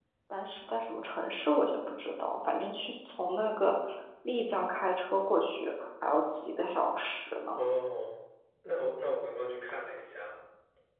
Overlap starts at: none

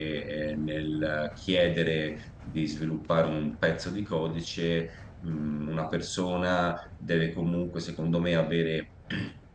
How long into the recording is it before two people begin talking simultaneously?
none

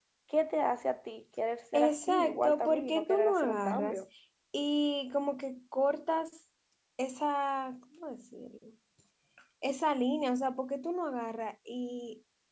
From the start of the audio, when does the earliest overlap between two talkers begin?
1.7 s

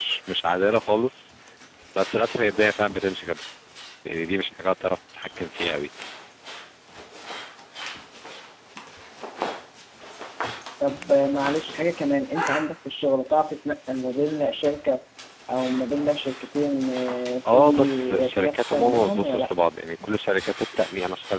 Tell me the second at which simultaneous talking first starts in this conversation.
17.4 s

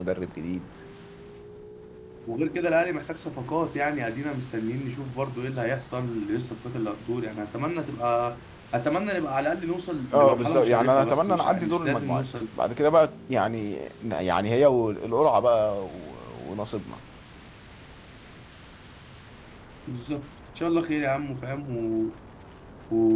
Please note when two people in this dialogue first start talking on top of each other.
10.1 s

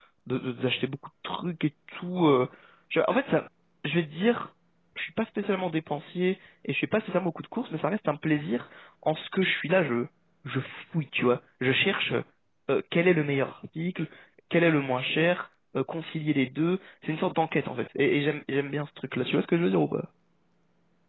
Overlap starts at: none

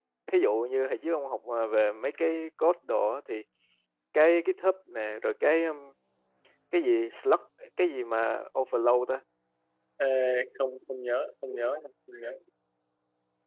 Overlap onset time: none

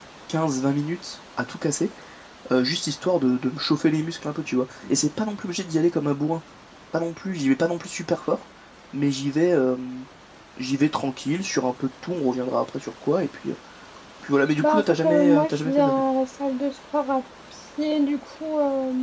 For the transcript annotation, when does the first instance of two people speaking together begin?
14.6 s

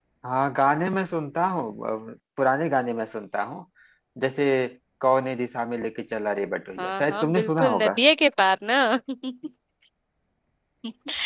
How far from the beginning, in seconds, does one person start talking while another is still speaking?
6.8 s

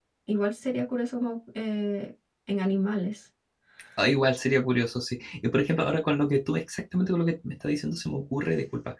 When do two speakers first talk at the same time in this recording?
none

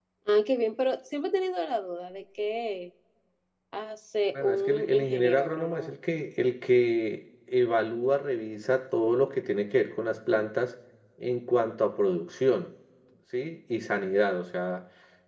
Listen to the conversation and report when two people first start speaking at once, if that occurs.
4.3 s

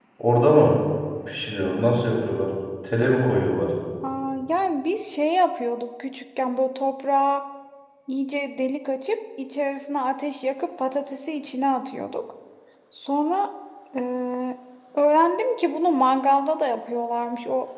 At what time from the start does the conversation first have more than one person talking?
none

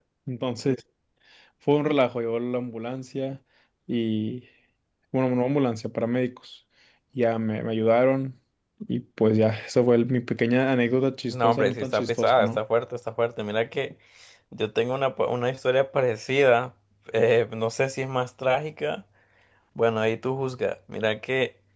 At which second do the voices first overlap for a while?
11.3 s

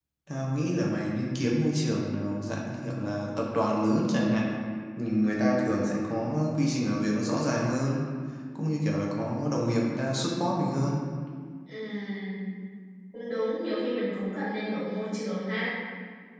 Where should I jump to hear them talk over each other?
none

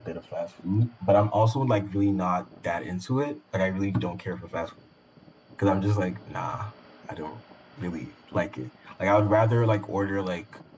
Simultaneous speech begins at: none

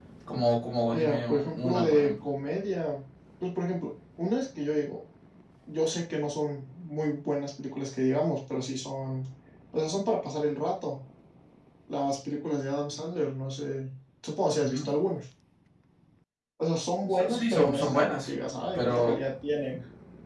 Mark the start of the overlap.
0.9 s

